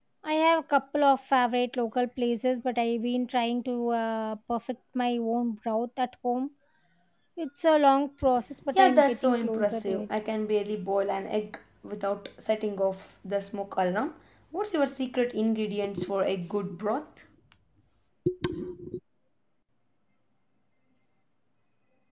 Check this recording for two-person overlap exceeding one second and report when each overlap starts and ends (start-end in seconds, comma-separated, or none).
8.7-10.1